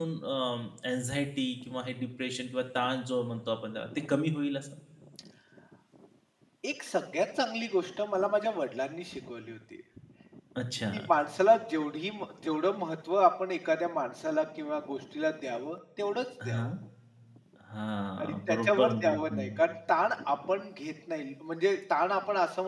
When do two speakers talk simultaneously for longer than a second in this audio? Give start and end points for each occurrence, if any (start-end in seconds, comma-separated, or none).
18.2-19.6